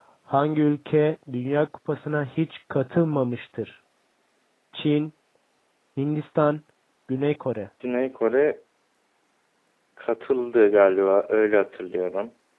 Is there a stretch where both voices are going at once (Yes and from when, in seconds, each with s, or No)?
No